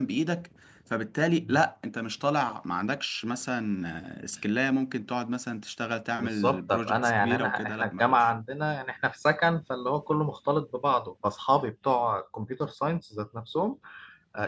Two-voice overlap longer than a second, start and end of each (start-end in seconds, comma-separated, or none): 6.2-8.3